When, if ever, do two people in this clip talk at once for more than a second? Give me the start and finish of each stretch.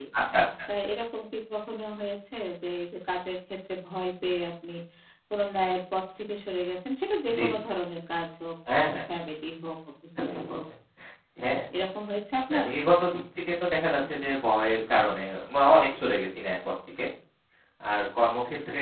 none

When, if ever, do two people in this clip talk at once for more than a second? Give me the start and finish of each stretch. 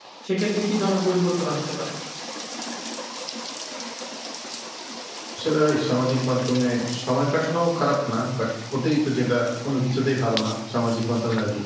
none

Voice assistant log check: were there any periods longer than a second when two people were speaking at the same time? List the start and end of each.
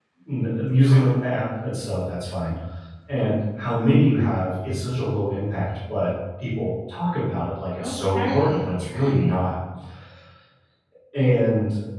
7.8-9.4

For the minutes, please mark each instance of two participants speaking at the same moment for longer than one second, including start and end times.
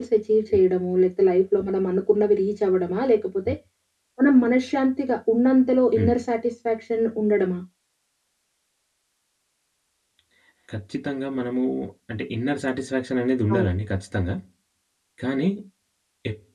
none

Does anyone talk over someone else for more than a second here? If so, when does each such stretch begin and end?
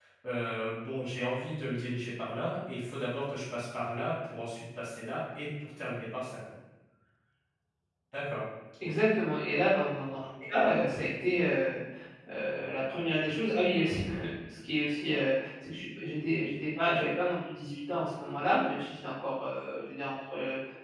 none

